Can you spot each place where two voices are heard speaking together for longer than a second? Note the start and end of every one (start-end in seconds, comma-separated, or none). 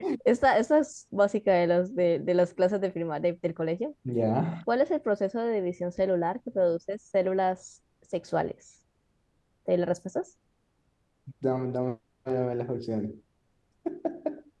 none